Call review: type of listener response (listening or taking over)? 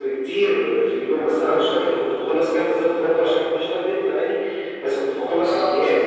listening